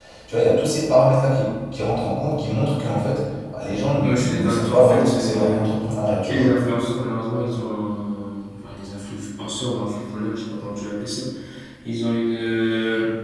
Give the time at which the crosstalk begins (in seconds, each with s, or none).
4.0 s